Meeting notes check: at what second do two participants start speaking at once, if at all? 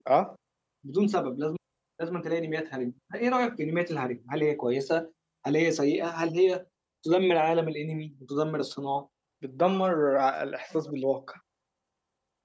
none

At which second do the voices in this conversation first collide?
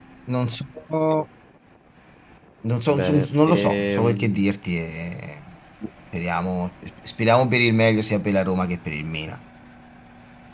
3 s

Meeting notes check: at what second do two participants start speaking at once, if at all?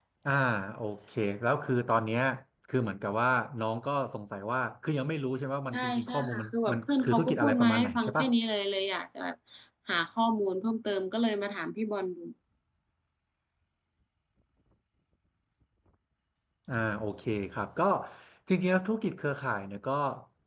6 s

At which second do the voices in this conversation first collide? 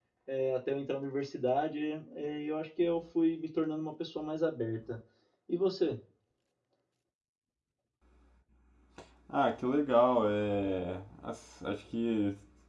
none

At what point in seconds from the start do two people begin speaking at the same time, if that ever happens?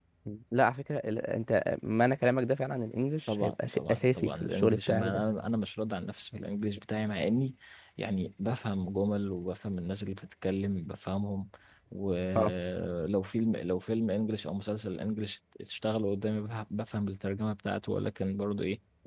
3 s

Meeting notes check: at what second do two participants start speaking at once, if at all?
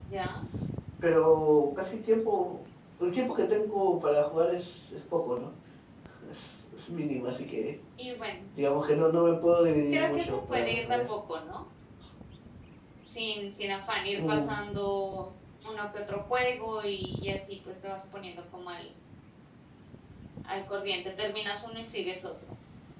10 s

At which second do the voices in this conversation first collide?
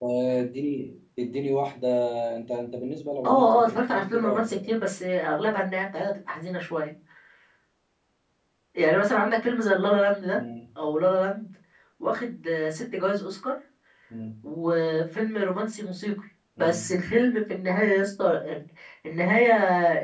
3 s

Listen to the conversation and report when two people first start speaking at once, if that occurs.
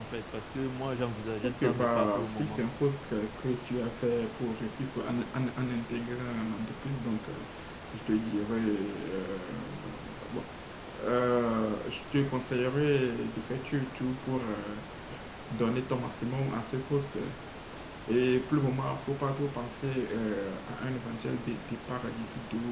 1 s

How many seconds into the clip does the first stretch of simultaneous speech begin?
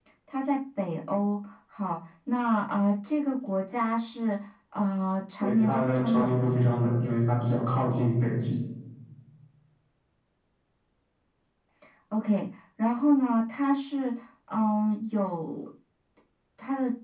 5 s

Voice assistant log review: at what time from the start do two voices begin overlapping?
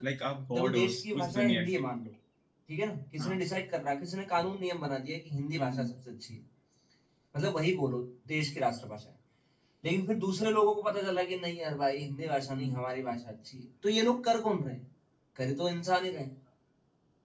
1 s

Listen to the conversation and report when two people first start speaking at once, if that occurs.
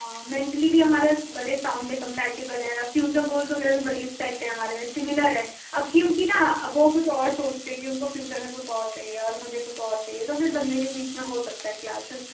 none

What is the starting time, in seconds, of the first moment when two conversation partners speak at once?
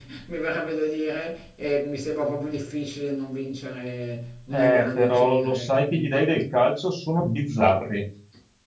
5 s

